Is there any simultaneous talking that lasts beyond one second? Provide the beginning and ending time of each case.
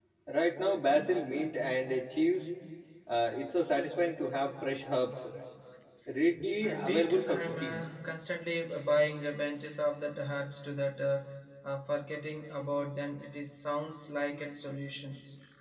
6.6-7.8

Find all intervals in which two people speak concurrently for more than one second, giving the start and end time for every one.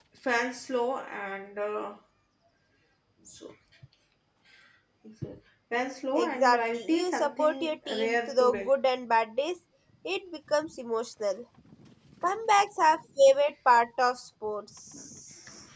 6.1-8.7

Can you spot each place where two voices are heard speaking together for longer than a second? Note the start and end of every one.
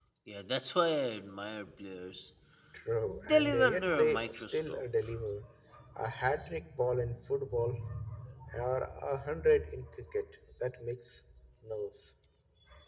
3.0-4.8

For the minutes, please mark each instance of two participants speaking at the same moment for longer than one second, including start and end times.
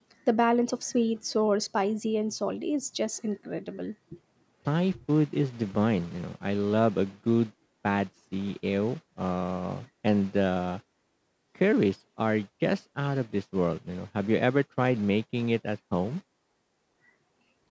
none

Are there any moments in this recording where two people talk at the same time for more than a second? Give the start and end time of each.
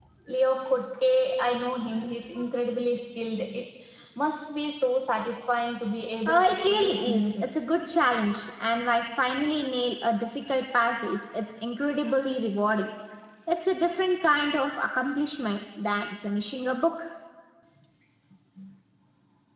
6.3-7.5

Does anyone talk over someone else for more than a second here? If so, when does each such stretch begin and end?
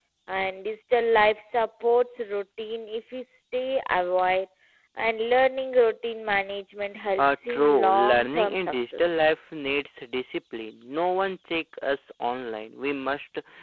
7.2-9.1

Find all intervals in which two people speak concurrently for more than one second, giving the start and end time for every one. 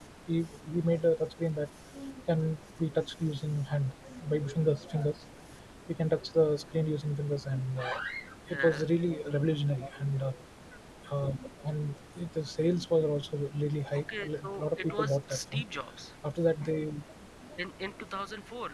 14.2-15.6

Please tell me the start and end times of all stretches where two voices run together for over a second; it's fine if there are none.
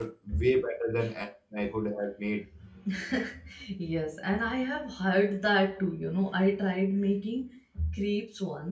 none

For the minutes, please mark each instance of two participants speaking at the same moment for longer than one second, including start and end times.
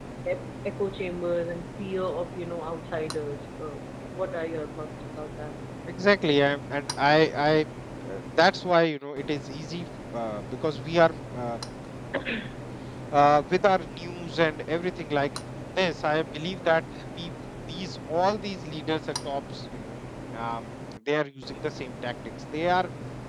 none

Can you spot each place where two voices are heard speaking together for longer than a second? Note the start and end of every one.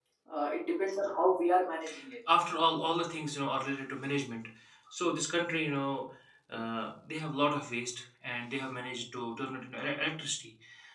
none

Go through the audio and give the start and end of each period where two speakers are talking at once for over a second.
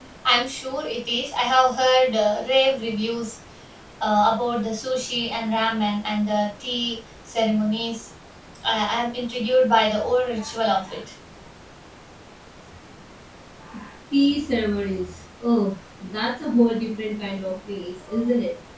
none

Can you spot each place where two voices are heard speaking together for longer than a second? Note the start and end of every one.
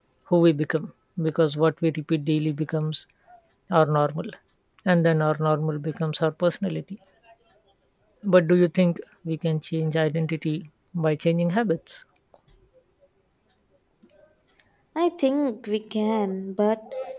none

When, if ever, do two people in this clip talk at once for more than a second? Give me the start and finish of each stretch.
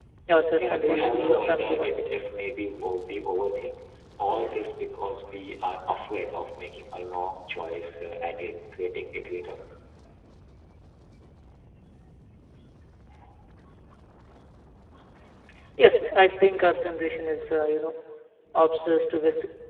0.6-2.1

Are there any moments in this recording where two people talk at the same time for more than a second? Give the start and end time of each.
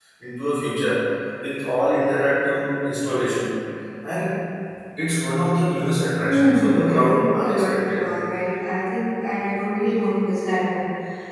6.2-8.0

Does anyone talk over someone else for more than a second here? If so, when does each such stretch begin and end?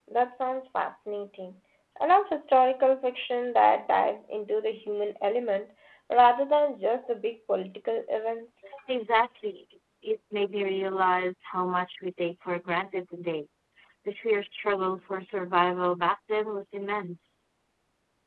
none

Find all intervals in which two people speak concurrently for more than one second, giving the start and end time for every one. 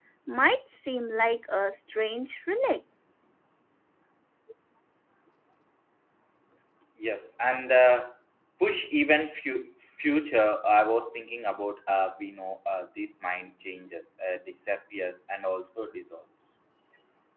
none

